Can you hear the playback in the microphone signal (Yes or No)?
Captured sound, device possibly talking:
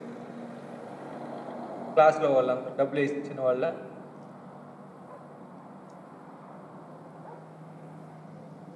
No